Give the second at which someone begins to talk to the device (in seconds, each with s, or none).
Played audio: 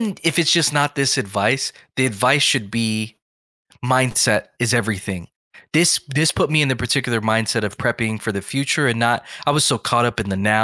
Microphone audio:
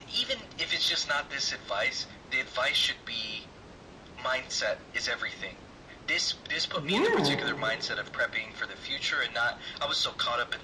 6.7 s